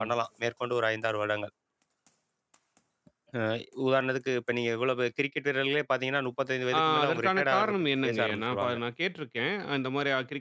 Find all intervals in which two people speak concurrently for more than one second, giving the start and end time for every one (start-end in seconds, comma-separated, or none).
6.8-8.8